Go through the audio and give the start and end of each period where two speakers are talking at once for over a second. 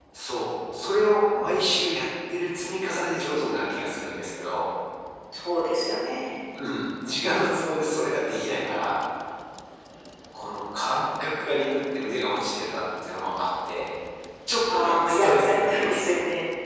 14.7-16.0

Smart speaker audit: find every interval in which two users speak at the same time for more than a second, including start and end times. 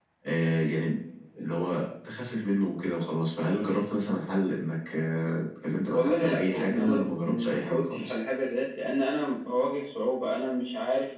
5.9-8.1

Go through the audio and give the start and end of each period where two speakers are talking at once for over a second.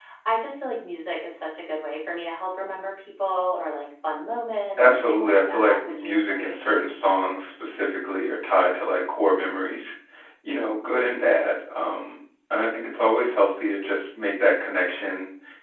4.8-6.6

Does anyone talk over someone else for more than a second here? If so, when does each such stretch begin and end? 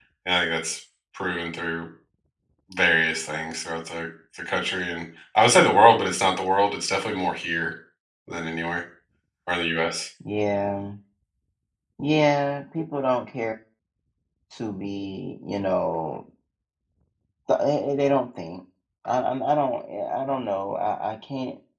none

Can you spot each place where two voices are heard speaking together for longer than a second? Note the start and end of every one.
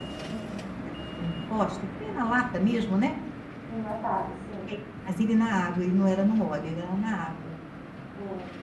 none

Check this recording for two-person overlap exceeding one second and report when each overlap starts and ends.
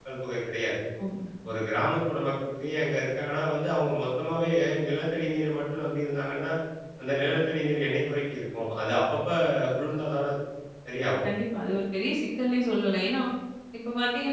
none

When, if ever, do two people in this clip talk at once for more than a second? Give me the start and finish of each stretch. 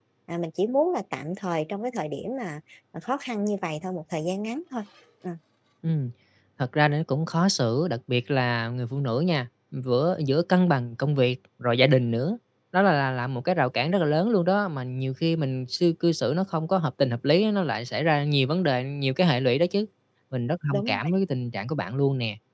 none

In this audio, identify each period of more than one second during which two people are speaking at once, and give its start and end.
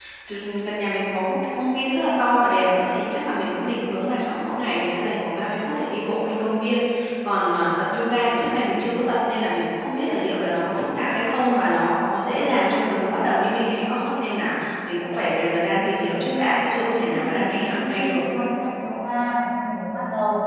15.7-18.2

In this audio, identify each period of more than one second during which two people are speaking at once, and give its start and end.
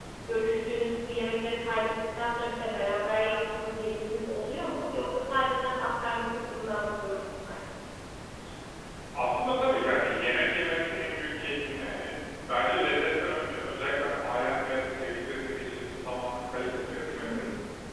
none

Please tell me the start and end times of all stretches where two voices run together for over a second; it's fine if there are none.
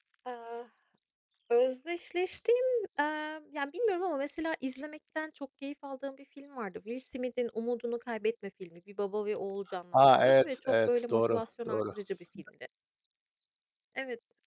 9.9-11.8

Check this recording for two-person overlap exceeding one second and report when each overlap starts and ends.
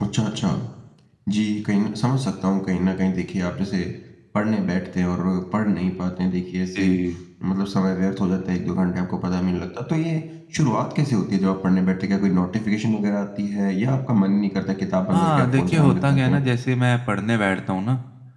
15.1-16.4

